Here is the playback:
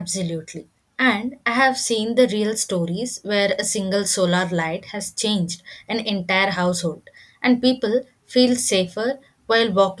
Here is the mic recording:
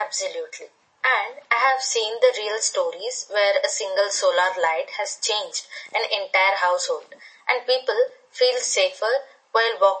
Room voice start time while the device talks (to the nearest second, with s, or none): none